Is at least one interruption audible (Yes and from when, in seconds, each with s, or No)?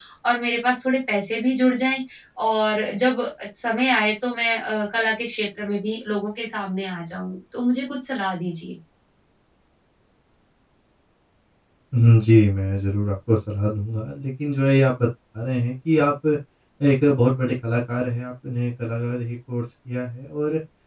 No